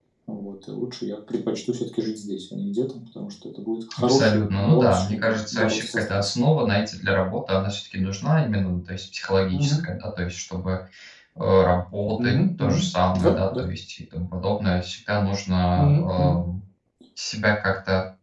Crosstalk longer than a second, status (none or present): present